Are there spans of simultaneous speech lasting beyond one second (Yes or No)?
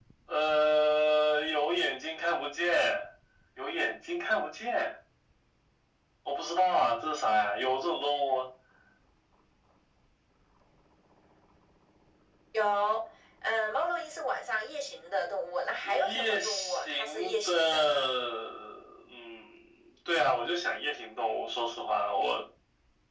Yes